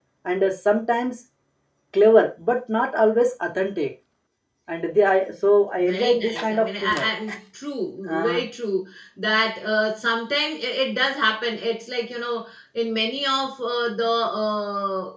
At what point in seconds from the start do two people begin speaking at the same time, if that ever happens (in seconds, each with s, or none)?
5.8 s